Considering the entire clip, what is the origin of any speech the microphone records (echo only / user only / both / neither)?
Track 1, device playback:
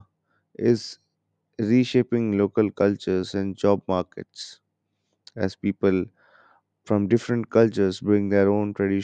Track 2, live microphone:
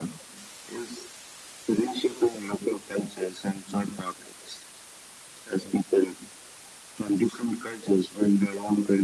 echo only